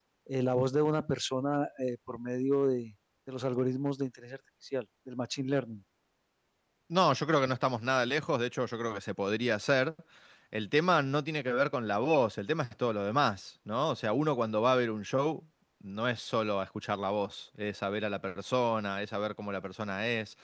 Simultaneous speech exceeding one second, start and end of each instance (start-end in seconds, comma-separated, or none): none